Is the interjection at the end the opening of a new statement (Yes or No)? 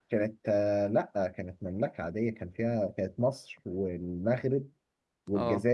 No